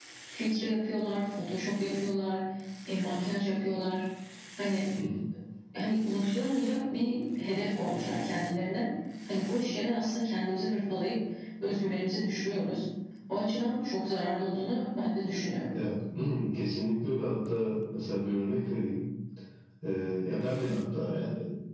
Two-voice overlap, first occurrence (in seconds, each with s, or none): none